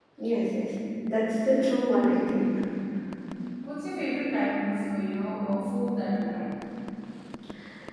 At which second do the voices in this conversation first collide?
none

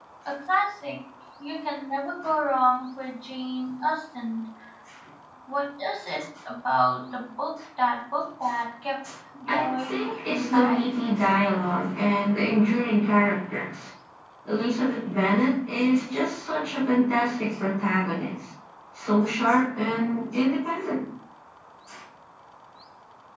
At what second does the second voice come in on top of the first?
9 s

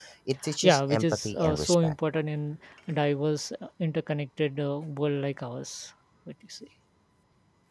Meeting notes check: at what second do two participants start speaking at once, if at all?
1 s

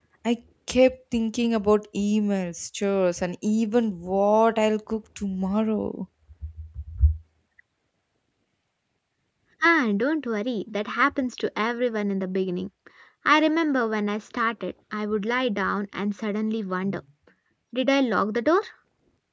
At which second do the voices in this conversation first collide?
none

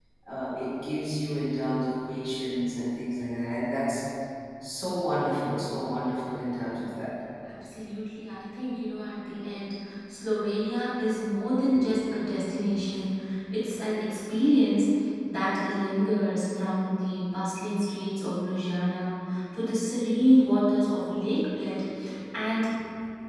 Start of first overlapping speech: none

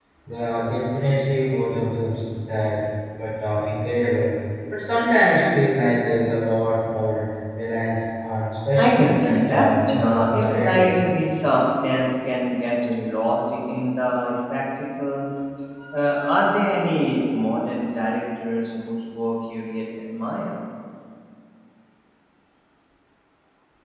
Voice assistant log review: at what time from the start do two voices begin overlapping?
9 s

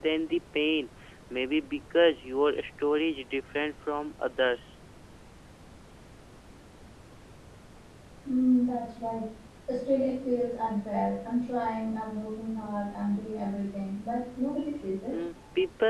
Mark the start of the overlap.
none

